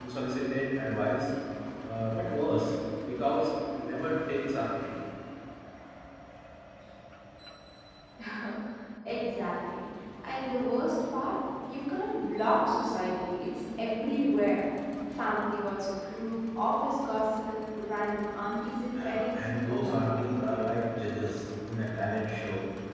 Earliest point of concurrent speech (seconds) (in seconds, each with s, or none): 18.9 s